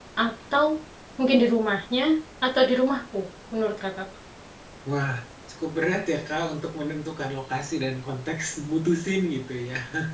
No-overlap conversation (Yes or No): Yes